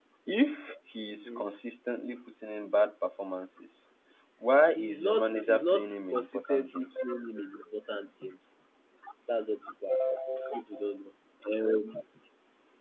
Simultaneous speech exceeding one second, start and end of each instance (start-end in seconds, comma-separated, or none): 4.8-6.9